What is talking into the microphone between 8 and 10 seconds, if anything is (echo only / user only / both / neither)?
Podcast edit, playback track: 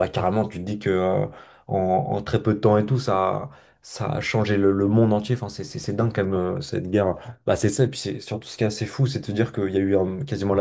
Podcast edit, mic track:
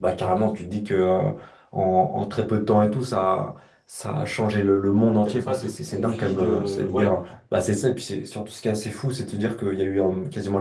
echo only